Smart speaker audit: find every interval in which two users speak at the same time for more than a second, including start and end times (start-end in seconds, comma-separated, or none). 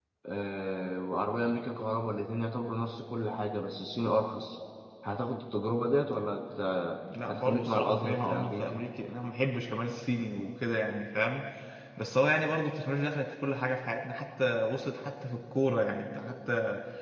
7.3-8.8